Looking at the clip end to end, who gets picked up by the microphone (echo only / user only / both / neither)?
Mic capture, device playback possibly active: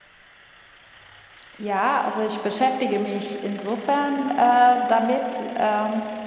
both